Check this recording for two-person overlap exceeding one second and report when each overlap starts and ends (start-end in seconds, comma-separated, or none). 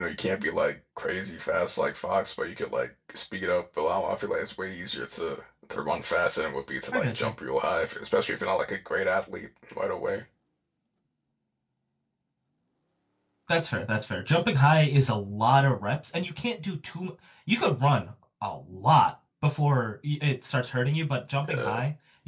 none